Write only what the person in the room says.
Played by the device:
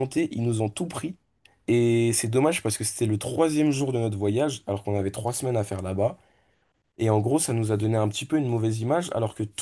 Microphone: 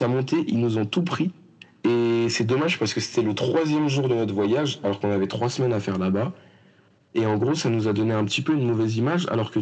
none

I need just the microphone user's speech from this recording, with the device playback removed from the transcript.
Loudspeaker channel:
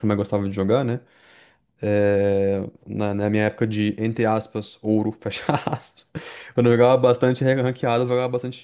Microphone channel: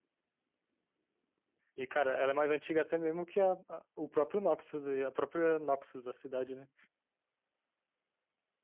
E, cara, ela é mais antiga até mesmo que a, a- o próprio Noxus, e a própria Noxus, da cidade, né?

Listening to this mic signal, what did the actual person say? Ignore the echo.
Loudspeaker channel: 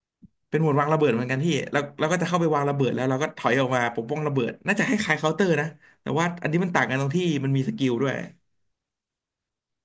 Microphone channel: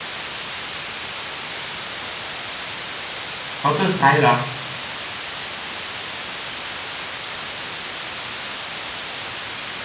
Counter Strike เหรอ

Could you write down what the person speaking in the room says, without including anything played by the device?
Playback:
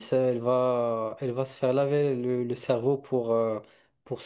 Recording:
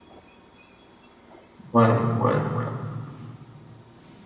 Ouais, ouais, ouais,

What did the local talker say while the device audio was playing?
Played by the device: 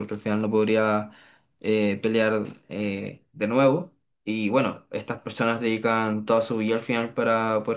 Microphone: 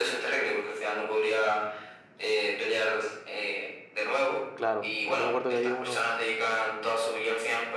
Claro, también me acuerdo que había uno,

